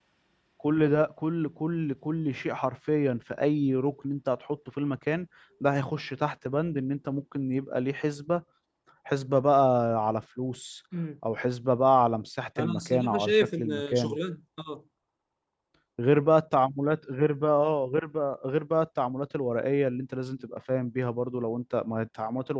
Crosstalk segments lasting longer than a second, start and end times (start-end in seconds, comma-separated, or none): 12.6-14.2